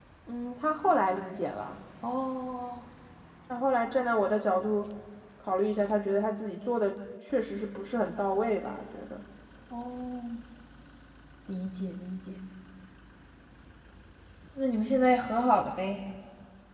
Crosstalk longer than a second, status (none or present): none